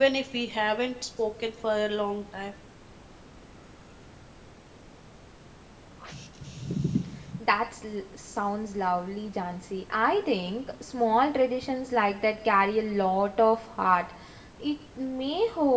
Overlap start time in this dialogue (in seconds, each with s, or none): none